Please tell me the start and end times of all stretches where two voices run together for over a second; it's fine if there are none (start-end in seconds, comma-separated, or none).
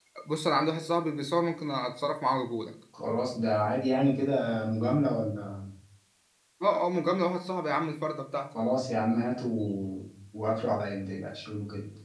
none